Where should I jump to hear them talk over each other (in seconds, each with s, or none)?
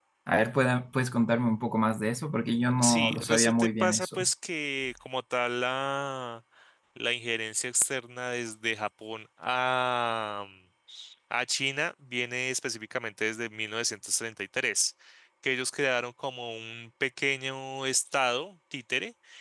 2.8 s